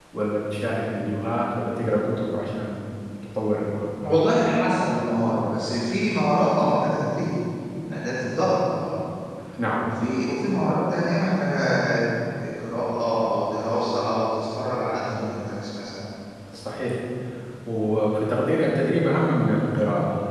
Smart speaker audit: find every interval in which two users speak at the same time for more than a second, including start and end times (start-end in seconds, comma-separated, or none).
none